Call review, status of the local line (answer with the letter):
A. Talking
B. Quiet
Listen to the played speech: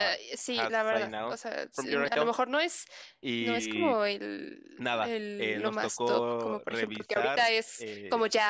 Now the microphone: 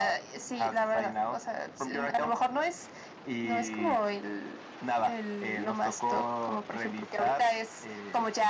B